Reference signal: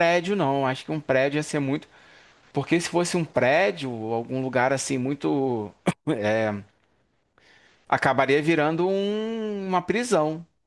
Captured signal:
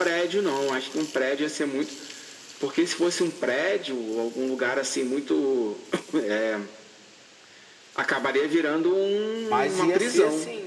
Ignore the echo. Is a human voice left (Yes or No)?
Yes